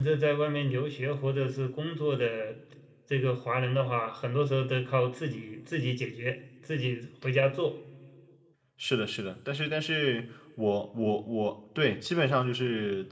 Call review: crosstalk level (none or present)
none